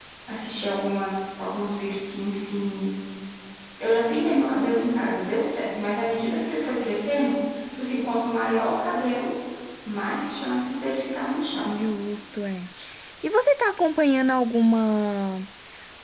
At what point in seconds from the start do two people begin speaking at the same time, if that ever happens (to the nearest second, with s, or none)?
none